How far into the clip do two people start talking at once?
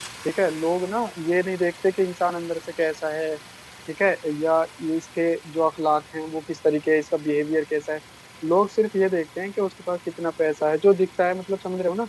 none

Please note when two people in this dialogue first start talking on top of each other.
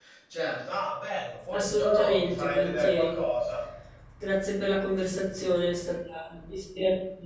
2 s

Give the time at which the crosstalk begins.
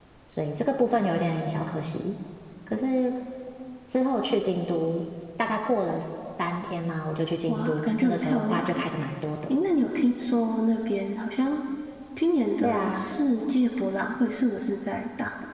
7 s

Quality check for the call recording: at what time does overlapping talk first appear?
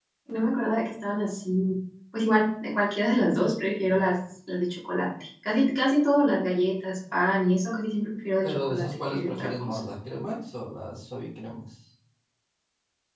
8 s

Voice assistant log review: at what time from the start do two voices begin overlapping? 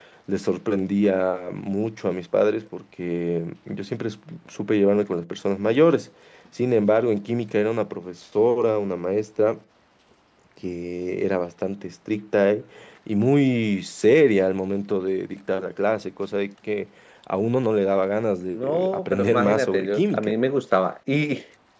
19 s

